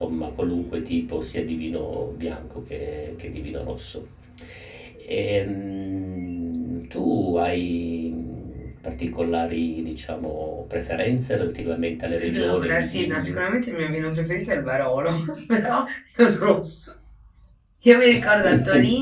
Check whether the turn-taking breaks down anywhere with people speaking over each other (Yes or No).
Yes